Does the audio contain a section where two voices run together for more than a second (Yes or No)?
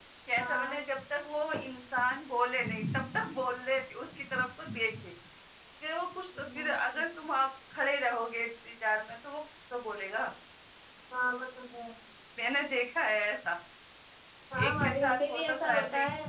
Yes